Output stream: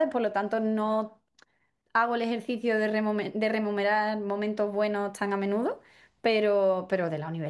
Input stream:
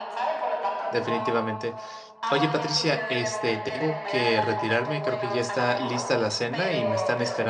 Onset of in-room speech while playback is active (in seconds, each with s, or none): 0.9 s